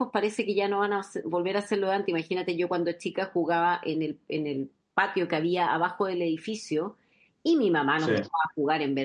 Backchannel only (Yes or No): Yes